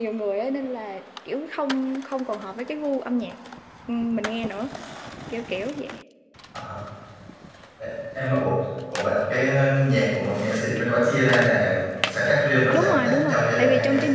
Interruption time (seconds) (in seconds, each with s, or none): 12.7 s